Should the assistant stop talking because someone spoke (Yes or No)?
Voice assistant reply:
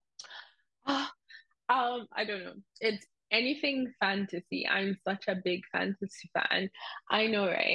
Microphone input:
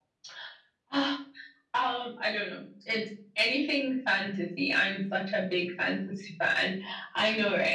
No